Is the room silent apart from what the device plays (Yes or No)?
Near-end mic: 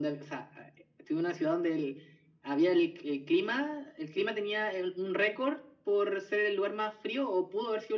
Yes